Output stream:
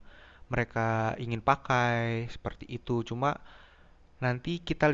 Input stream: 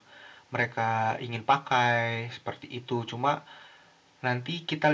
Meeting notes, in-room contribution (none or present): none